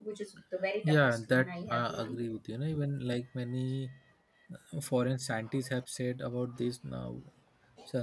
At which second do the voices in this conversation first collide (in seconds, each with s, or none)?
0.8 s